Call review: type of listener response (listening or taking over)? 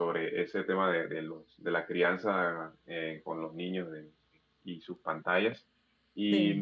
listening